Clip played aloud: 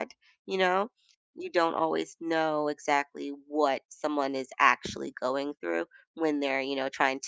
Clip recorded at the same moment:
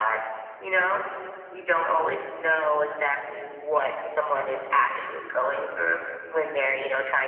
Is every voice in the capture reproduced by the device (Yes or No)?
Yes